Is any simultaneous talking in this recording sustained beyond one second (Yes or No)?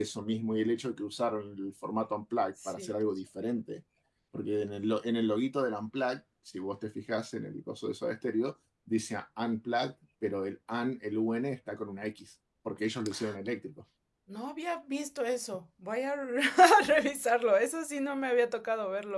No